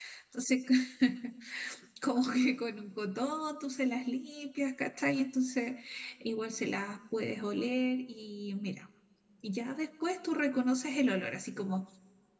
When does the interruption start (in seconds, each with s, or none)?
none